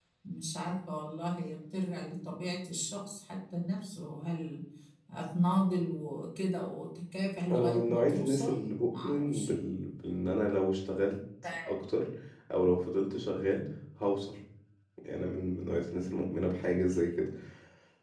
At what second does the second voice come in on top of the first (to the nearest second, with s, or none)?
7 s